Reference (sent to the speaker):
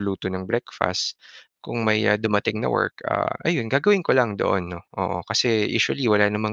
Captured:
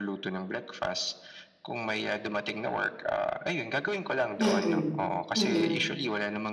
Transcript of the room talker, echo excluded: Mm, mm.

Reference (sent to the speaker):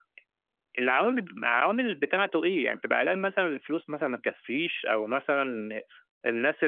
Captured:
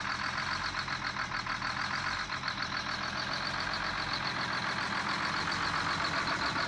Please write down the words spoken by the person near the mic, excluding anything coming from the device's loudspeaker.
none

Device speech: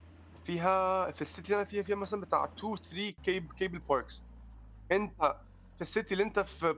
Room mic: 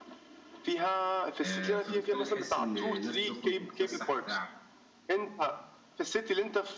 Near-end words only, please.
آآ فبالتالي تحِس إن الناس بتخرُج وبتتفسّح وبتاع.

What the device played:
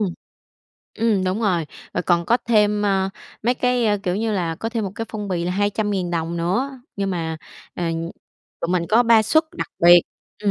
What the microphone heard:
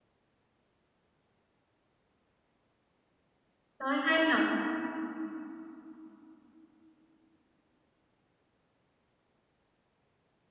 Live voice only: Trời ơi, hay nhỉ!

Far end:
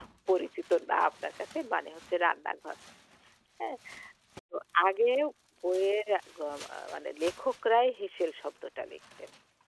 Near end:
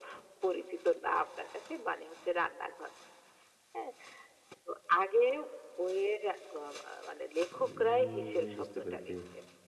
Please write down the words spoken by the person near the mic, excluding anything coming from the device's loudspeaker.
উম বুঝতে পেরেছি।

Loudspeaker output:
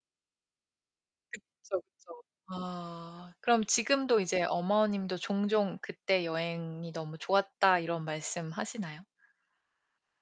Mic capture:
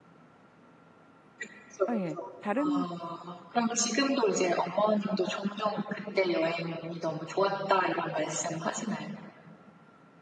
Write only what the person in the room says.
아 예 다른

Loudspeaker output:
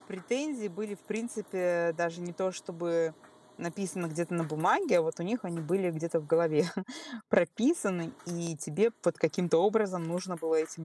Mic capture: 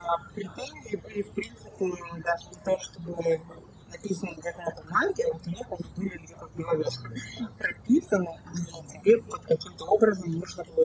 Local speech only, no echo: none

